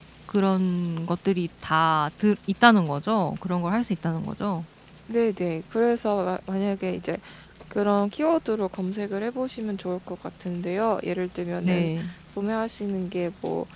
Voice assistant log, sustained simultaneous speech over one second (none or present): none